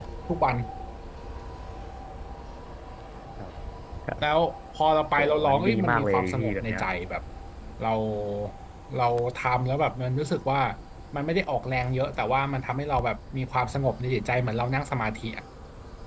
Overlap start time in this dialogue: 5 s

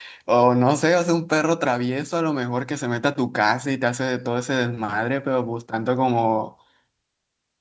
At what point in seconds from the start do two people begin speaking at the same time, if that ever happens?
none

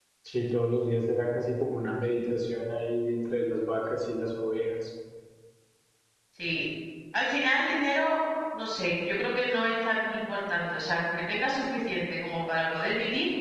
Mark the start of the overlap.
none

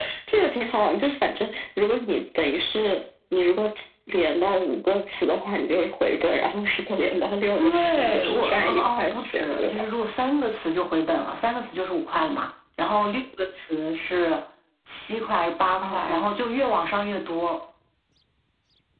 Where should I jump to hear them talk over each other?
8 s

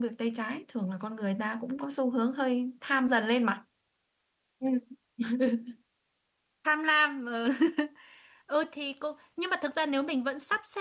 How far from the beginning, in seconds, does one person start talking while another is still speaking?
none

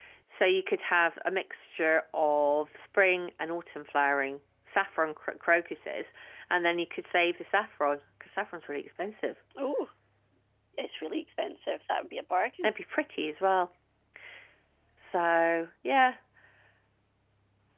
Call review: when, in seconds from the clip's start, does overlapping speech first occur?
none

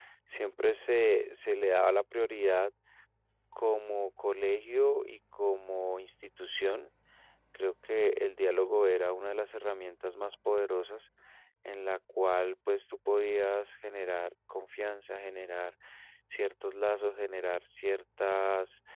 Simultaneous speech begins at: none

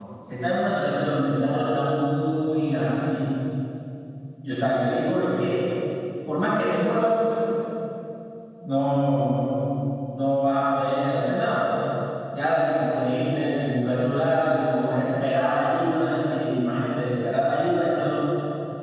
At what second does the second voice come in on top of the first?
none

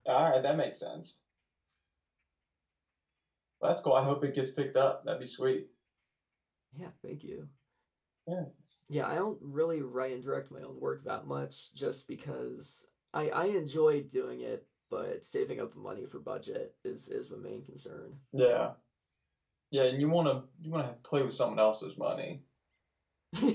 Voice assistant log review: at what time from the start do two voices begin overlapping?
none

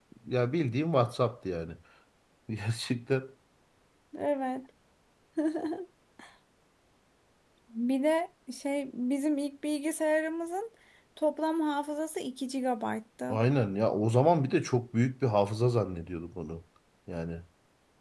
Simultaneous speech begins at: none

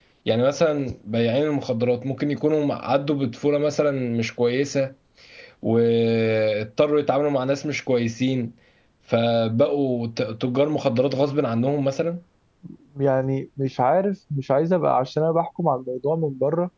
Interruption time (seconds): none

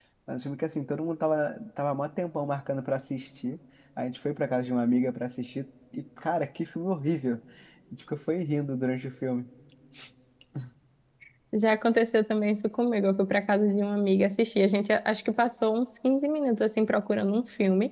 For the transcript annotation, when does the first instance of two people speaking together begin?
none

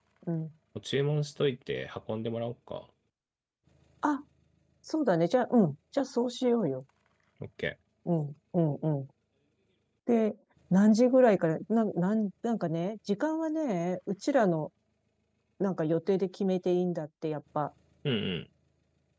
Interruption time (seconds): none

